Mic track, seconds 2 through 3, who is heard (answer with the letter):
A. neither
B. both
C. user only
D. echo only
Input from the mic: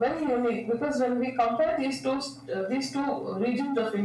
D